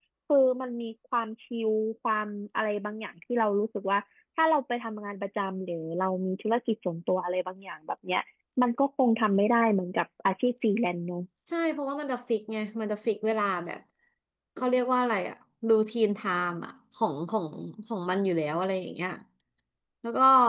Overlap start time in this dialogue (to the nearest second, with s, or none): none